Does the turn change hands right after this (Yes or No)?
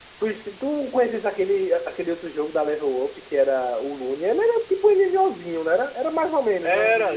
Yes